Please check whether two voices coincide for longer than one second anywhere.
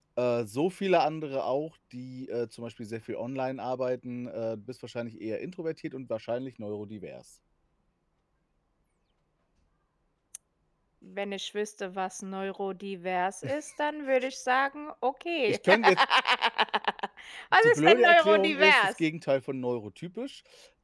Yes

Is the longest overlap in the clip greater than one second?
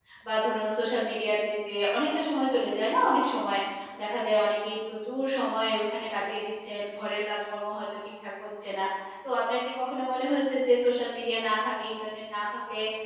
No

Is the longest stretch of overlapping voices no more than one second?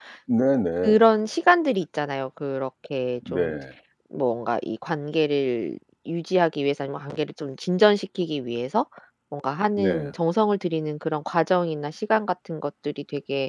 Yes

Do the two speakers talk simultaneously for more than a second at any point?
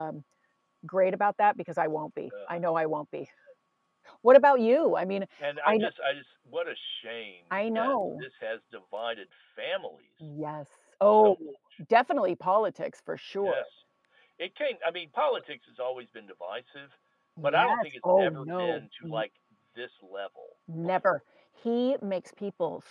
Yes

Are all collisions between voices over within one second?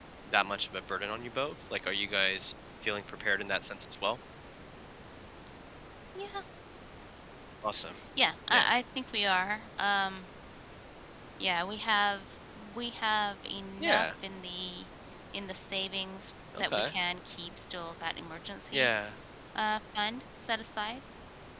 Yes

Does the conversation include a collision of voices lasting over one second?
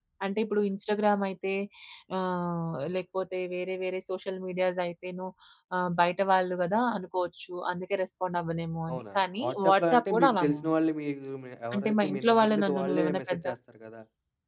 Yes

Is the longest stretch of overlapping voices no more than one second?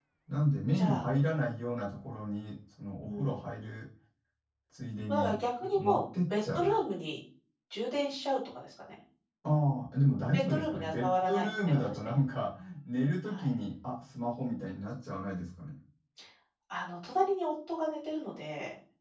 No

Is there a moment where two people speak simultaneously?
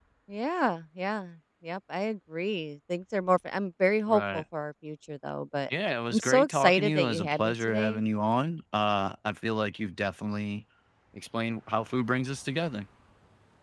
Yes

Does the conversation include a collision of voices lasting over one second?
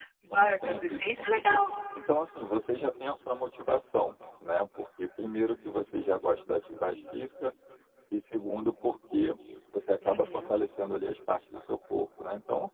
Yes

